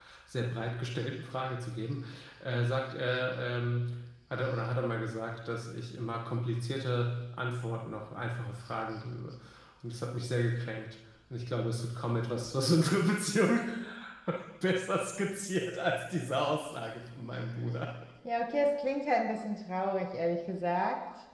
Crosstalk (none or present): none